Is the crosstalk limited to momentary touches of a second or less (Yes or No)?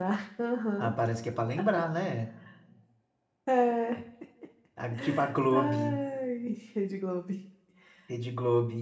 Yes